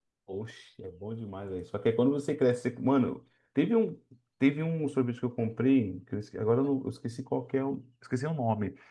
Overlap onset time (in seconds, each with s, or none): none